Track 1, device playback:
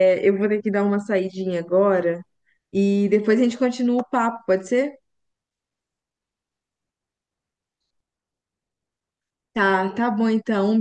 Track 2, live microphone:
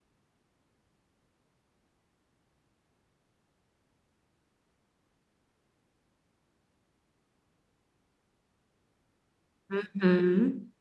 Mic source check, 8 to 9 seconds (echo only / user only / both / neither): neither